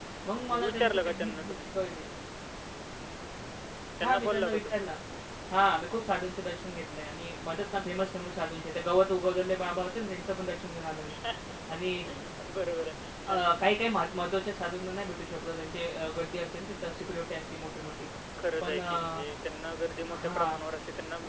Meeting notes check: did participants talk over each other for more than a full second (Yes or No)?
Yes